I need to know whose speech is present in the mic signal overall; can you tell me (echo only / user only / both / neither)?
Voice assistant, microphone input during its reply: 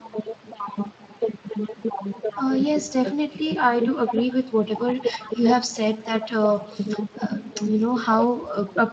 both